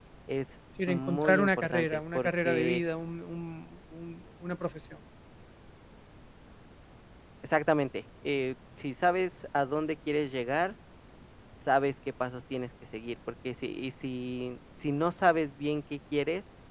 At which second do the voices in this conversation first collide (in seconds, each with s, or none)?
0.9 s